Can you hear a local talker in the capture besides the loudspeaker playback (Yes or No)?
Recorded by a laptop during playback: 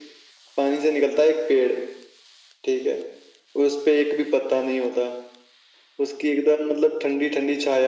No